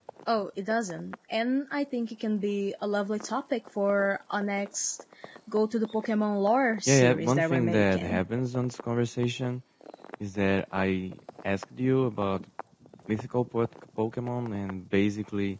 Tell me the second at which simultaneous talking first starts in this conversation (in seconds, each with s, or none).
6.9 s